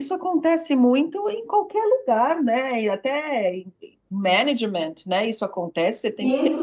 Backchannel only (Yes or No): No